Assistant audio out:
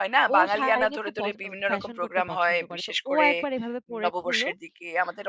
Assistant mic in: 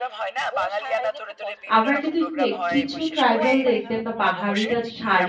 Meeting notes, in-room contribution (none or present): present